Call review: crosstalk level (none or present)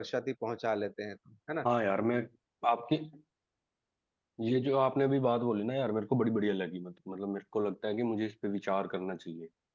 none